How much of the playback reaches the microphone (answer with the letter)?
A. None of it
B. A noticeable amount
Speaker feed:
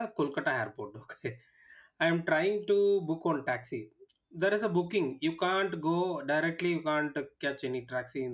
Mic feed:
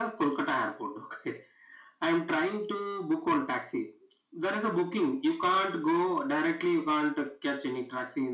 B